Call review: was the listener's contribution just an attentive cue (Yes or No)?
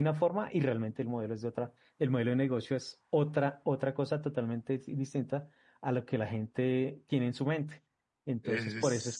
Yes